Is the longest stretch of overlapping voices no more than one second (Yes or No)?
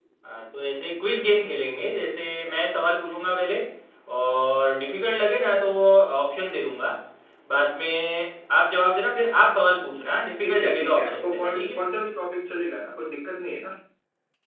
No